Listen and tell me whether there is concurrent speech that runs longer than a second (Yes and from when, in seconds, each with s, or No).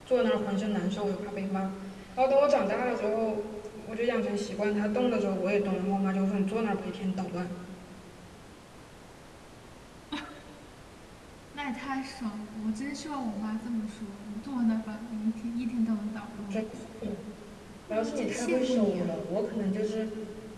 Yes, from 17.9 s